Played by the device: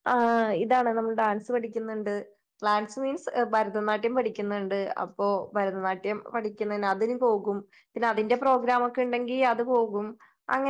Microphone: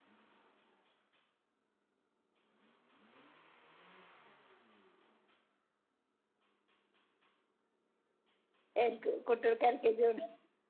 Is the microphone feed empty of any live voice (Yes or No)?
No